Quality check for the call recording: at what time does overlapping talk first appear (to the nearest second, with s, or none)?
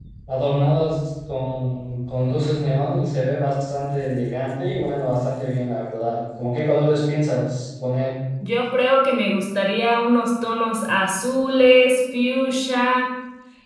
none